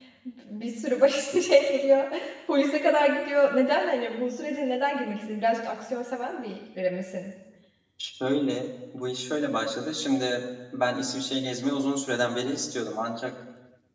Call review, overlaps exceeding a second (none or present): none